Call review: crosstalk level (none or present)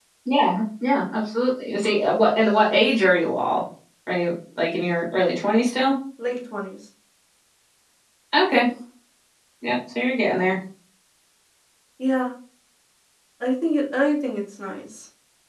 none